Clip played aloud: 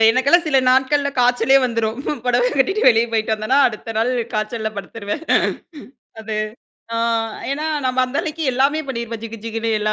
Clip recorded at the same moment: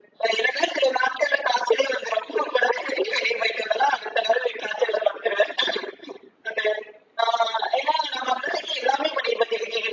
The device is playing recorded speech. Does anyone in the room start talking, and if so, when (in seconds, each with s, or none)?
none